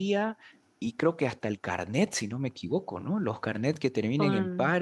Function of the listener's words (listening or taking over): listening